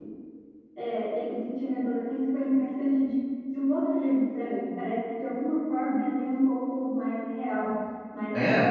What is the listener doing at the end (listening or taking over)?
listening